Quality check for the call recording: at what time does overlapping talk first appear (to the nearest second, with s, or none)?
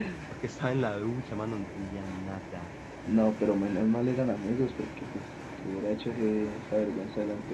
none